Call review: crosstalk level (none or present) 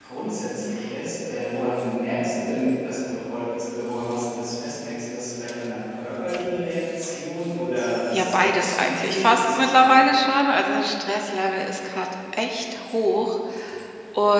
present